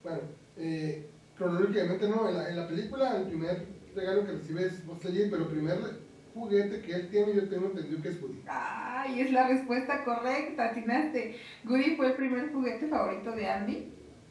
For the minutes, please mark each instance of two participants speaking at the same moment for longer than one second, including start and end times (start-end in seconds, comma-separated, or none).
none